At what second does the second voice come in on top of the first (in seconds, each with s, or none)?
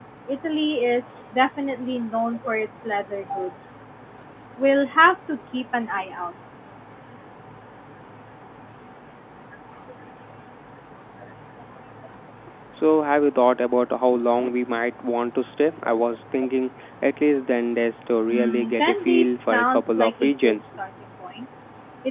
18.3 s